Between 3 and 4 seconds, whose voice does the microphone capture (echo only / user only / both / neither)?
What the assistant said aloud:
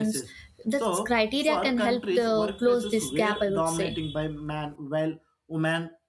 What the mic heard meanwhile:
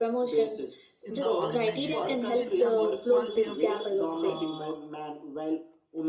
both